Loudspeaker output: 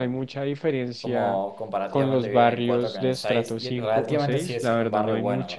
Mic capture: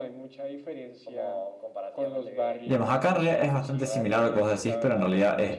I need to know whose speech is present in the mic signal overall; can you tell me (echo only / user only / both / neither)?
both